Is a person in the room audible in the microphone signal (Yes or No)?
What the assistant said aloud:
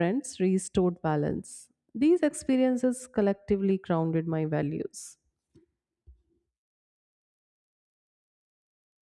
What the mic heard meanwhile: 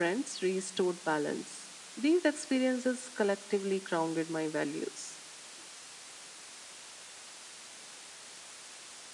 No